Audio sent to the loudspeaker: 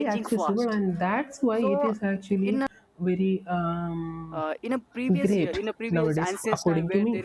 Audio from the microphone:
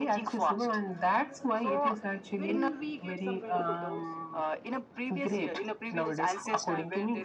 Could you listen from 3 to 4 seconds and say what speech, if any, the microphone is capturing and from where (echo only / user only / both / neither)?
both